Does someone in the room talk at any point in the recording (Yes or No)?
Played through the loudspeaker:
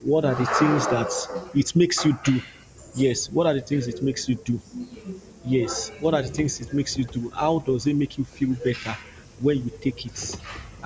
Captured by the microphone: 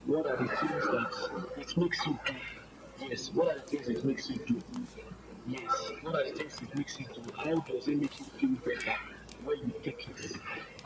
No